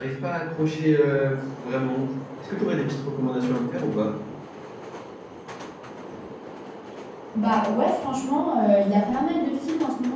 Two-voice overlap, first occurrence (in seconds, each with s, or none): none